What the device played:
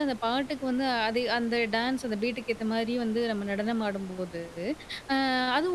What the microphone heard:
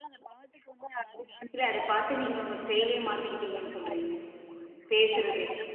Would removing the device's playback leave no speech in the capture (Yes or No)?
No